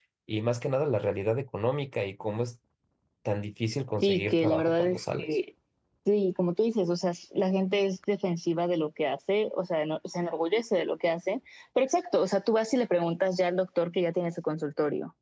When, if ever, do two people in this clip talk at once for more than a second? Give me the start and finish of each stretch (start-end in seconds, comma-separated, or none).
4.0-5.4